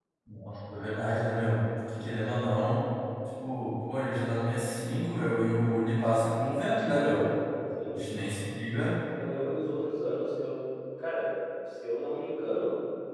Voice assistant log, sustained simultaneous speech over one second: none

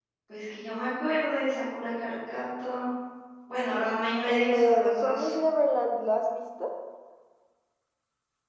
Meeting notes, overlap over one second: present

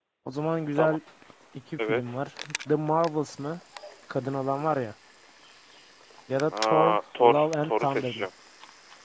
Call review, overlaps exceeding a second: present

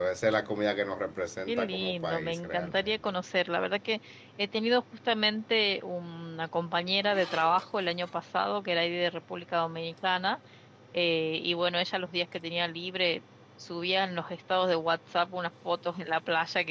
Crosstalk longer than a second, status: present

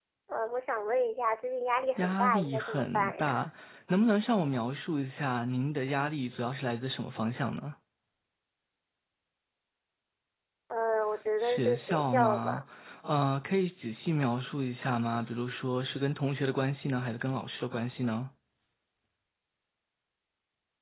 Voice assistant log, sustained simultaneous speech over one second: present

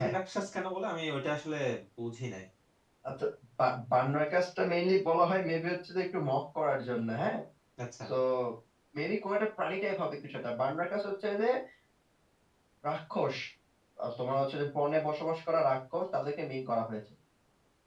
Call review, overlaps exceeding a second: none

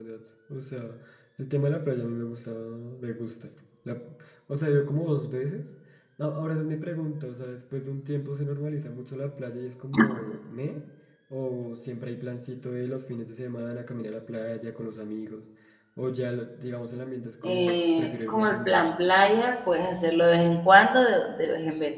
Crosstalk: present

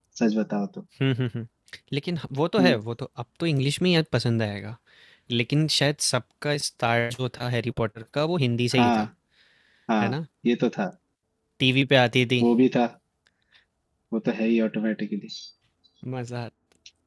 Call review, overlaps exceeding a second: none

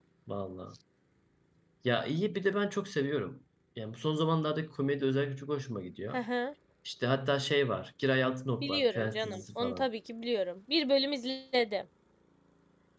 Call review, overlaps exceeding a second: present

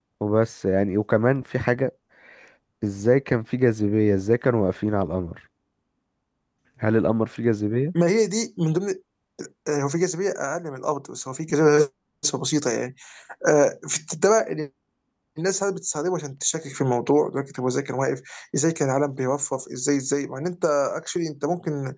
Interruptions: none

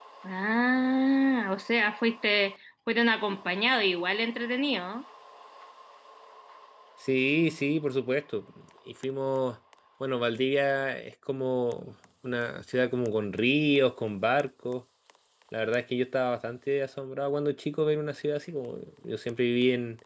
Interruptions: none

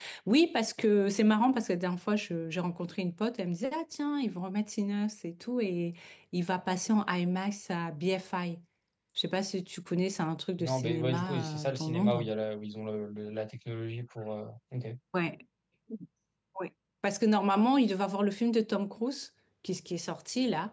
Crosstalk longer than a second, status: present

